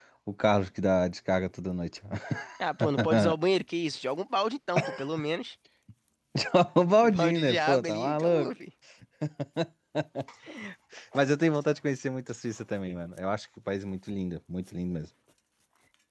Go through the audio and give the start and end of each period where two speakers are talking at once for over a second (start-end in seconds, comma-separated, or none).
7.0-8.5